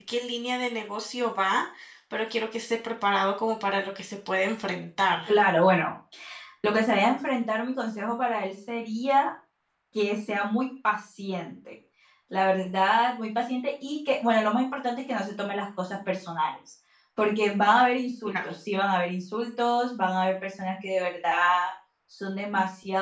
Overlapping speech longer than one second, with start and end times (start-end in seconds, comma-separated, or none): none